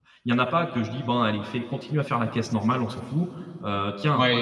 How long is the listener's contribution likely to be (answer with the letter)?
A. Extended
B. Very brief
A